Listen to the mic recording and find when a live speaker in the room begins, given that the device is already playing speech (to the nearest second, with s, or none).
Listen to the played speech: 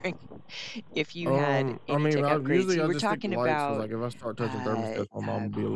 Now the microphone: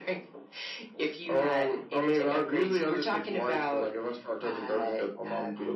none